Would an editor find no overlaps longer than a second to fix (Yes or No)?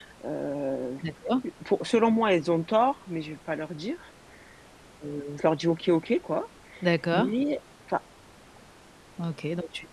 Yes